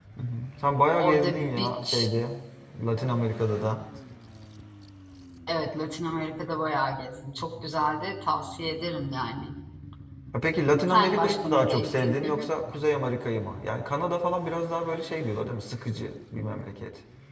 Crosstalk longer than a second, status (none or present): present